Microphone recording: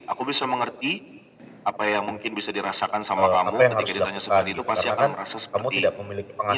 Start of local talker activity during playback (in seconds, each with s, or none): 3.2 s